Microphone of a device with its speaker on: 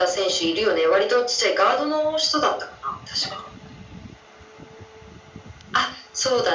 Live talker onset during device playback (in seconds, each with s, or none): none